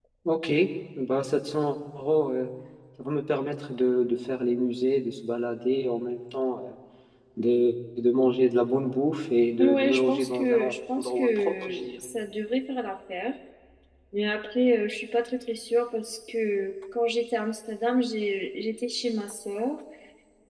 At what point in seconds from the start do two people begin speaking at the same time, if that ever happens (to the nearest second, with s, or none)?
10 s